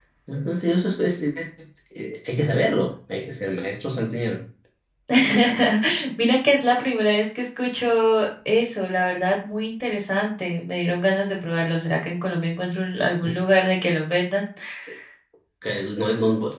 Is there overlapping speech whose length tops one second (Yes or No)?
No